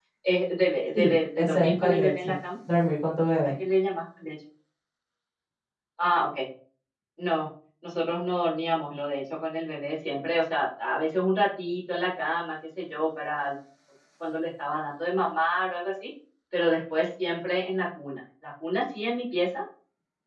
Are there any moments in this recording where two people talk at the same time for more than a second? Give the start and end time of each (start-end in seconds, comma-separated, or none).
0.9-2.4